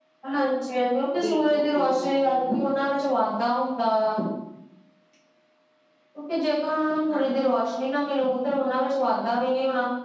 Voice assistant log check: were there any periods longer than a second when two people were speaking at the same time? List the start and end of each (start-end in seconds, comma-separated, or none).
1.2-2.8